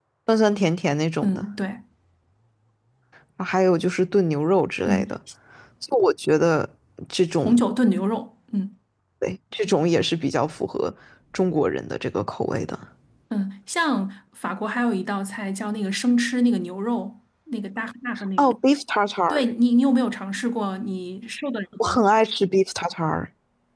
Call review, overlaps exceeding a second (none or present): none